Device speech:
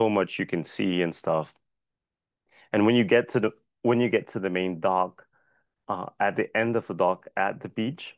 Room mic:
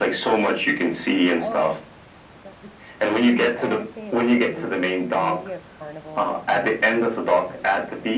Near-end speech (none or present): present